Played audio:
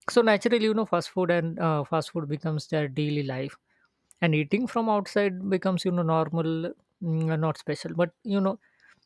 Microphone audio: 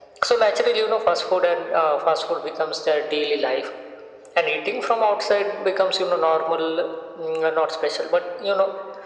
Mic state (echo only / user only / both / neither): echo only